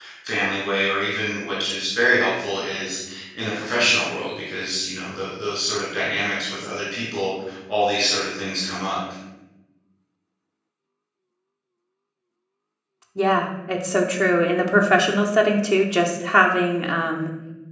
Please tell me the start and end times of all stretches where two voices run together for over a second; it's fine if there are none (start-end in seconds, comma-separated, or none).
none